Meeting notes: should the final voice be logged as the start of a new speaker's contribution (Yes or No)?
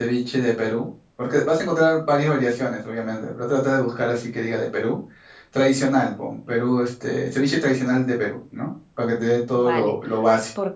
Yes